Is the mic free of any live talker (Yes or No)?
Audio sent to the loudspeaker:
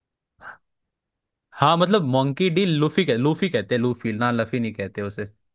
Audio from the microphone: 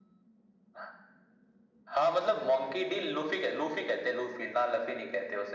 Yes